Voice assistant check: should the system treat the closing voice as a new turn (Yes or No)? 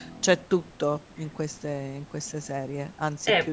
Yes